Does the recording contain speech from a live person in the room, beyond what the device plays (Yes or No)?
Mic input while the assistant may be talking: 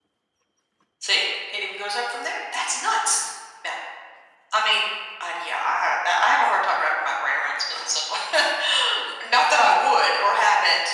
No